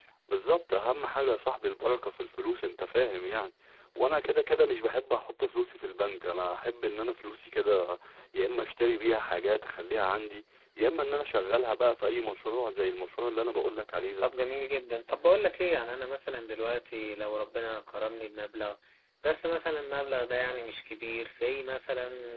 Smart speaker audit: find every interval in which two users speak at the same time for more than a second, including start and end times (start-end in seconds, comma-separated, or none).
none